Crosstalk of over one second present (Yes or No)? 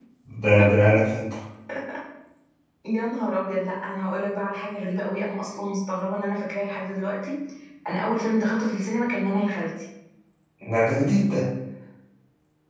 No